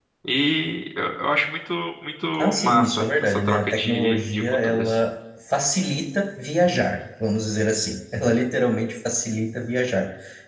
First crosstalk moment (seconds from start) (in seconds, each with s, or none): 2.4 s